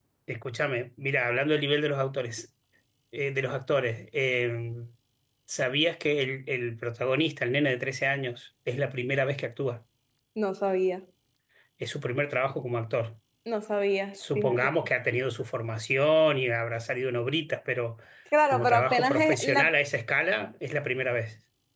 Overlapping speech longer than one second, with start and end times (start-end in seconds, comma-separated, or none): 18.5-19.7